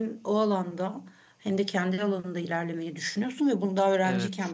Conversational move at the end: listening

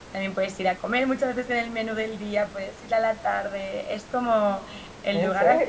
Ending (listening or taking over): listening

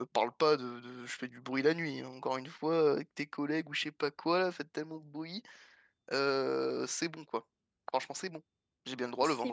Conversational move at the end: listening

